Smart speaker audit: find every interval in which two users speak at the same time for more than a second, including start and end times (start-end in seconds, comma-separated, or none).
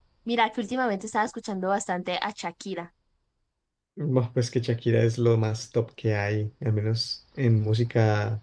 none